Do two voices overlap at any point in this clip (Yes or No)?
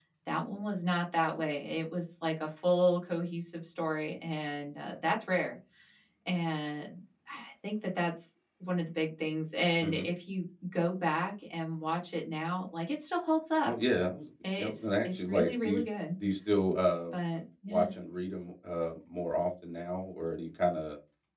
Yes